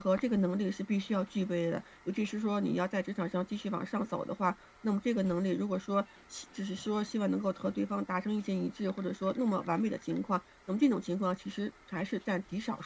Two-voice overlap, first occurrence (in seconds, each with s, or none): none